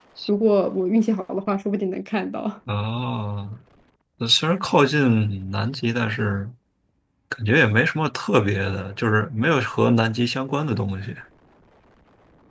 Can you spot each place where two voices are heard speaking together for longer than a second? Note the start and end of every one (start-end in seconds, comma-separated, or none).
none